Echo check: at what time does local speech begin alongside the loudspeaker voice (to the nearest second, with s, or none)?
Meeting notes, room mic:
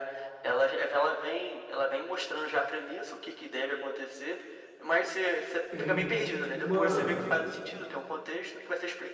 6 s